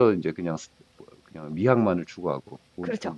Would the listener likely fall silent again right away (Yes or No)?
No